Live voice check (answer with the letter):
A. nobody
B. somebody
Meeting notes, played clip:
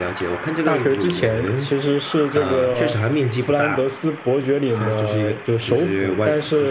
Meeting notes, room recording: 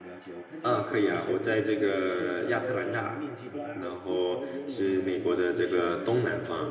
B